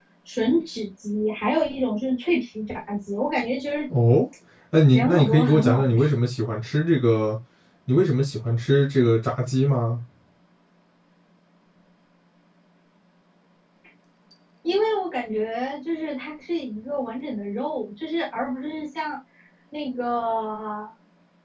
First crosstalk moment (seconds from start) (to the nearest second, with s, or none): 5 s